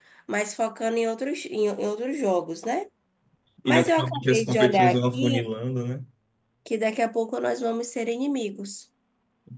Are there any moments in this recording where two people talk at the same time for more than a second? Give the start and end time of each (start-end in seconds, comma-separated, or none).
3.7-5.5